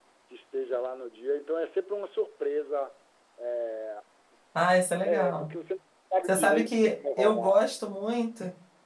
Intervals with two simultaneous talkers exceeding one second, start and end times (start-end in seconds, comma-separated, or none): 6.2-7.8